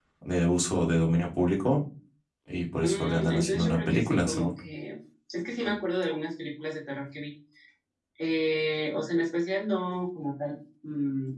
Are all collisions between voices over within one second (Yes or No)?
No